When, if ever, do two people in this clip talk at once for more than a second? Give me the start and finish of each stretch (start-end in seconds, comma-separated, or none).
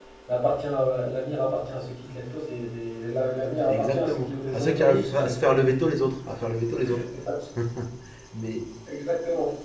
3.7-5.5